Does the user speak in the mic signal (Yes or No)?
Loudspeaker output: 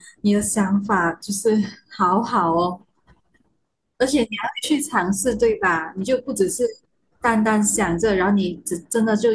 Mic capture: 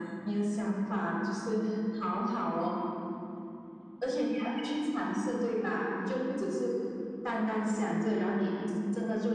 No